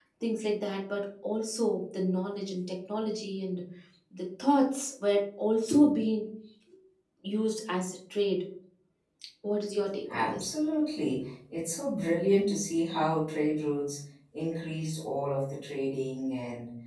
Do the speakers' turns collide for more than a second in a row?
No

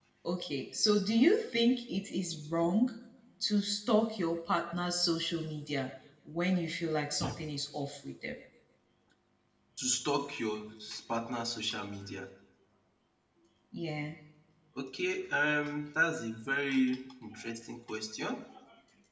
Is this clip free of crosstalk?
Yes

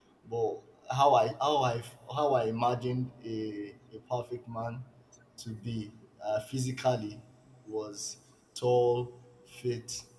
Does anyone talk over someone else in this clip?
No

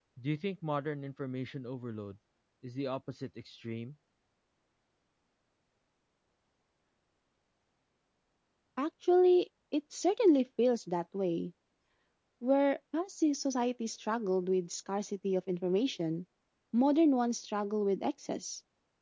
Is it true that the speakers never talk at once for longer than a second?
Yes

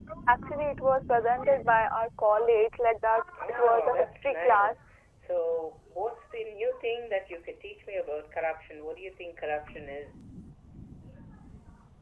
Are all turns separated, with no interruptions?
No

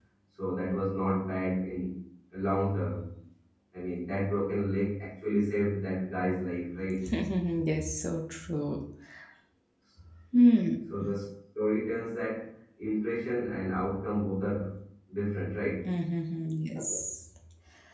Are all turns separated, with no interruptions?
Yes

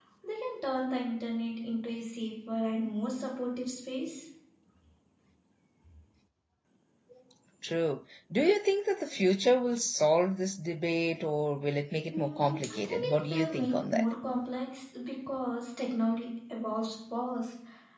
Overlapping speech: Yes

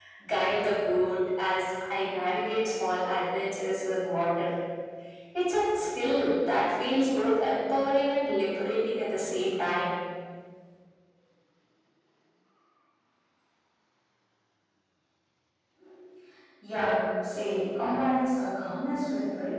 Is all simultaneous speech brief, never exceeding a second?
Yes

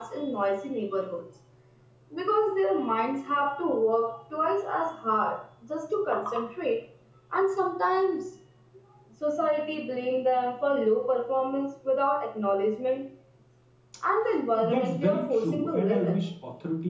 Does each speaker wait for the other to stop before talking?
No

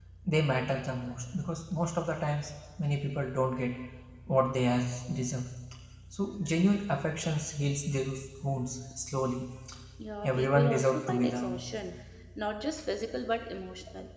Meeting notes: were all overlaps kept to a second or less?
No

